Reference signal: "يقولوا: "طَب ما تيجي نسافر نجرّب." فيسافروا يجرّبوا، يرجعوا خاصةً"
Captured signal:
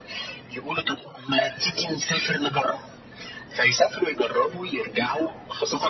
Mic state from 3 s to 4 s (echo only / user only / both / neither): echo only